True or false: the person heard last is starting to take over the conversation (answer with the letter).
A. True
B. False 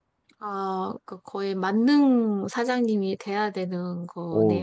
A